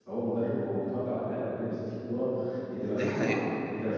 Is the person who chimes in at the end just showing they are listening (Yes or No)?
Yes